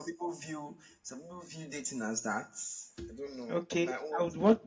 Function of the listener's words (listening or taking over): taking over